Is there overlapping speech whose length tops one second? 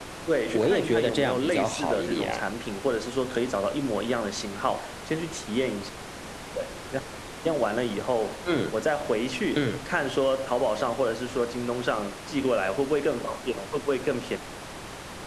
Yes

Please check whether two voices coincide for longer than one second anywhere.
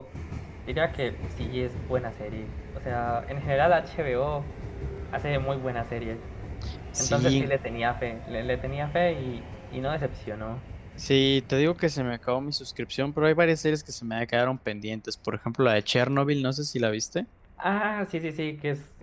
No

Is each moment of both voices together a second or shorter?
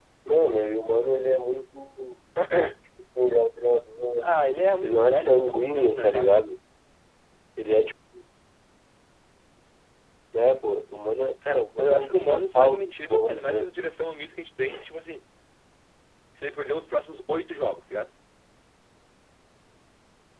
No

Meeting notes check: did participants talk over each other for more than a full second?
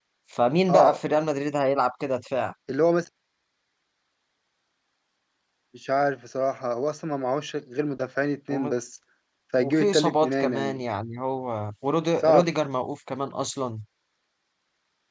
Yes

